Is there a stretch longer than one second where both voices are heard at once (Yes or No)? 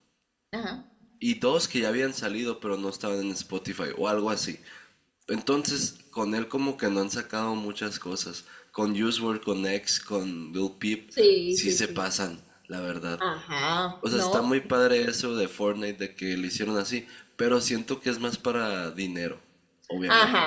No